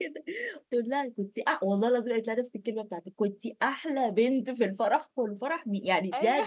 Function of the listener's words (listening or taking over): listening